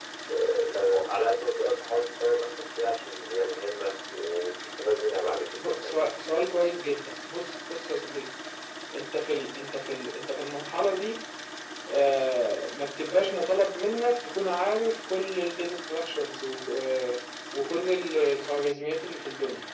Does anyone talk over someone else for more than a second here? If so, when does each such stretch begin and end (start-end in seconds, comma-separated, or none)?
none